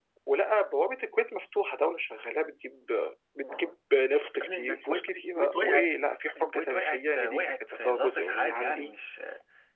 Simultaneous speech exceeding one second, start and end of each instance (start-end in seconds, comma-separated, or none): 4.4-5.9, 6.4-8.9